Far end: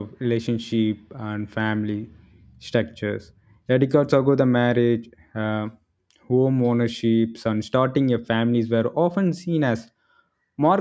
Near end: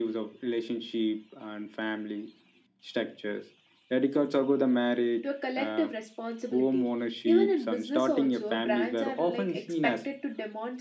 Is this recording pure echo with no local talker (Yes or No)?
No